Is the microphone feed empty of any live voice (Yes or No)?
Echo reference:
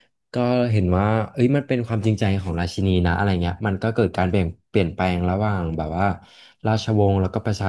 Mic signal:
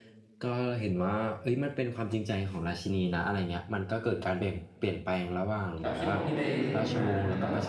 No